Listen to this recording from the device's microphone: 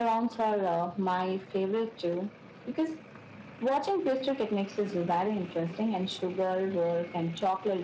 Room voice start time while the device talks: none

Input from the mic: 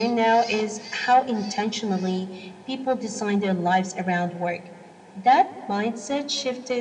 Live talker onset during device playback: none

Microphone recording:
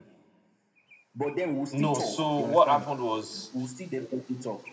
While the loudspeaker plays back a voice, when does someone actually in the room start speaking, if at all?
2 s

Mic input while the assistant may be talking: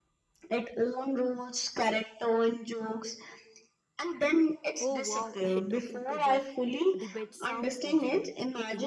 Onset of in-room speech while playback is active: 5 s

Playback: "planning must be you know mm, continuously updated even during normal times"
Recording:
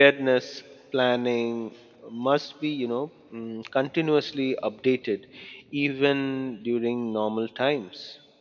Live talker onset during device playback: none

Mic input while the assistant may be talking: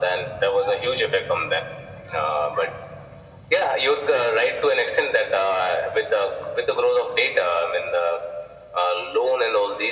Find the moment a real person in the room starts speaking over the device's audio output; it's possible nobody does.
none

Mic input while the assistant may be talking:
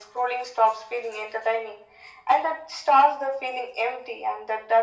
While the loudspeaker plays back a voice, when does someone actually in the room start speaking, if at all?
none

